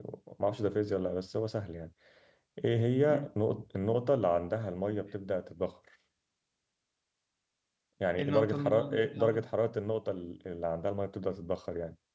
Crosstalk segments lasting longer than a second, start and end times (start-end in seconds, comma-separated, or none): 8.2-9.4